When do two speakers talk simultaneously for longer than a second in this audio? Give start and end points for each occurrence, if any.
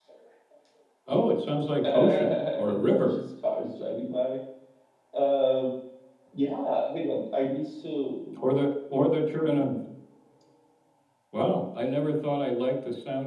1.8-3.2

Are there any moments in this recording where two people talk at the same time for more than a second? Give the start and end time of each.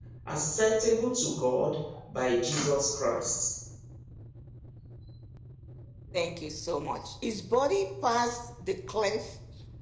none

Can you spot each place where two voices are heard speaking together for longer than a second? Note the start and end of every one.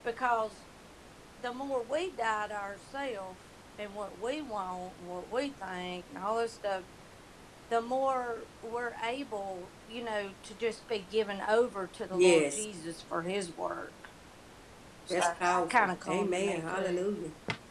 15.1-17.0

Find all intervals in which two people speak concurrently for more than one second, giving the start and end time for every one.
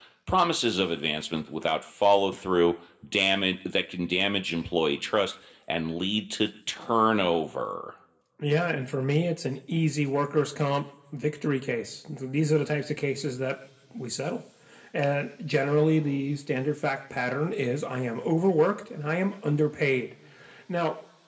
none

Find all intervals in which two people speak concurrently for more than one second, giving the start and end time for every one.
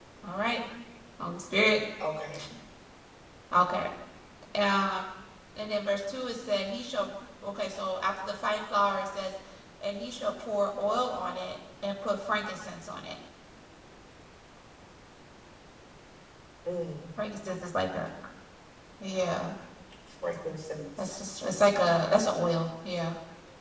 none

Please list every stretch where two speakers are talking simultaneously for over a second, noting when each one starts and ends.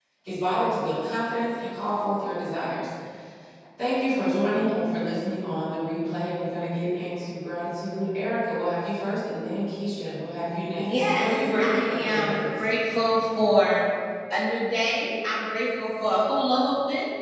10.8-12.5

